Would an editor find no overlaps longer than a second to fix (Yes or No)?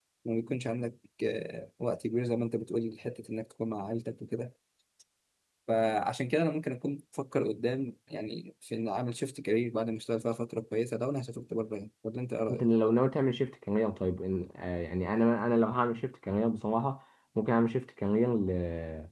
Yes